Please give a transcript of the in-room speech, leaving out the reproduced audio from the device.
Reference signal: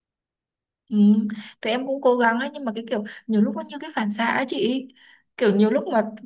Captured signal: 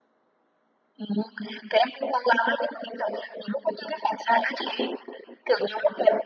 none

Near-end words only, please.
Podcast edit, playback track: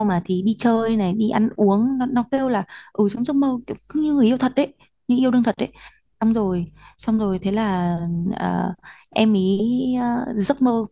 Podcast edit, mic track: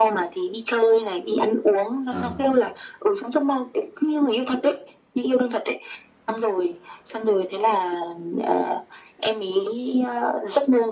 Ờ,

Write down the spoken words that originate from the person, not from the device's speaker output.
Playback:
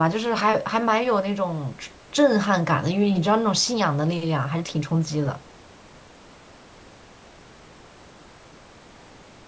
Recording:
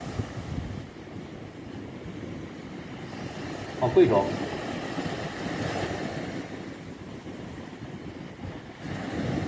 哦，贵州，

